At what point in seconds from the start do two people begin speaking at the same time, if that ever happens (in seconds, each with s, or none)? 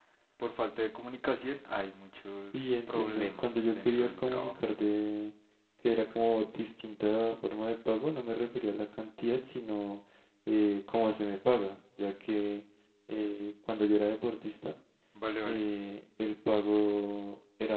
2.5 s